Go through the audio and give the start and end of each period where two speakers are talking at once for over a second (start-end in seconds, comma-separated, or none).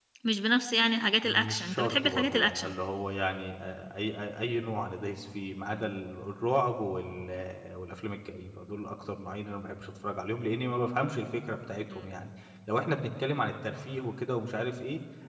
1.2-2.7